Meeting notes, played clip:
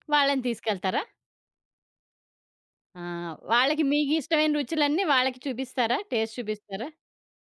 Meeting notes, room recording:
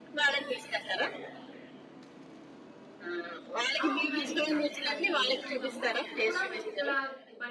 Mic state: both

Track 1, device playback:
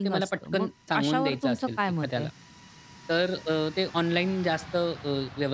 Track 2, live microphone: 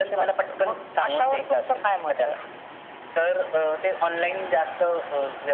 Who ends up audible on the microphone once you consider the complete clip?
echo only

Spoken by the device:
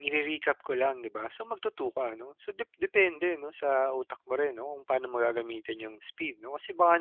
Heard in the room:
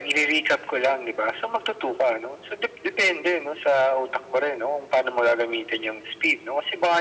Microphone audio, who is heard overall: echo only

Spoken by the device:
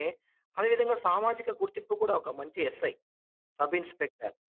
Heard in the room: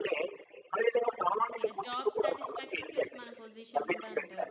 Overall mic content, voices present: both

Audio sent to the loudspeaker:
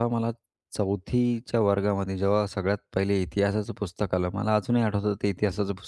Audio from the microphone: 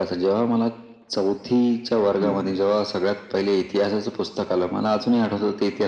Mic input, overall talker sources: both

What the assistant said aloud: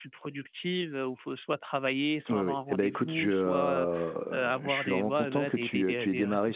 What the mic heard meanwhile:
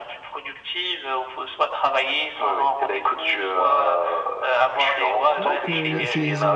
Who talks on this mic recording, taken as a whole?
both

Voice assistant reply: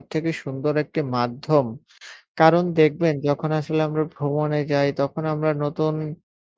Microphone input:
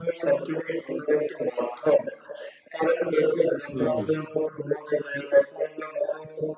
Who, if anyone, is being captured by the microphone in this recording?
both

